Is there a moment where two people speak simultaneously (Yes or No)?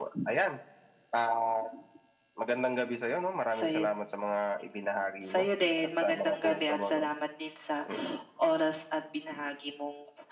Yes